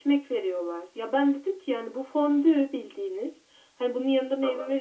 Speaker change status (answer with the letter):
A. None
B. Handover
A